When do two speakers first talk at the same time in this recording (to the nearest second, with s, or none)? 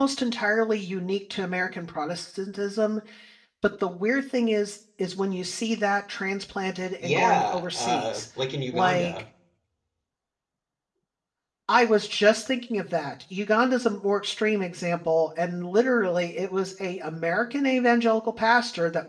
7 s